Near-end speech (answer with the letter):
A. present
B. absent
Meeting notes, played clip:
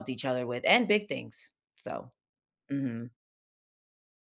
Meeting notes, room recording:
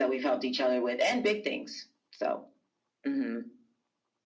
B